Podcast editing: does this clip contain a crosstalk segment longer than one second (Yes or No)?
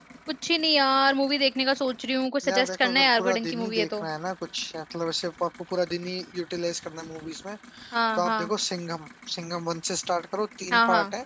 Yes